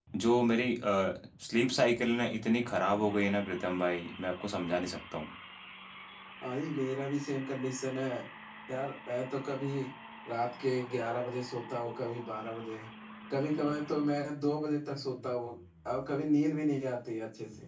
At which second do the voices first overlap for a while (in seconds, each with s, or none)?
none